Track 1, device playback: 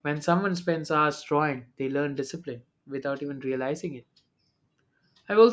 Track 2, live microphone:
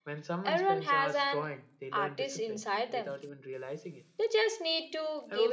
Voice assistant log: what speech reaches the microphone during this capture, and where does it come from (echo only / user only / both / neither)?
both